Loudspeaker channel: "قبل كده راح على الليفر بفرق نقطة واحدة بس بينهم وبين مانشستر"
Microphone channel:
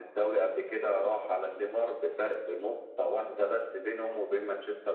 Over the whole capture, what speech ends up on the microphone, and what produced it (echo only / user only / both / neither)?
echo only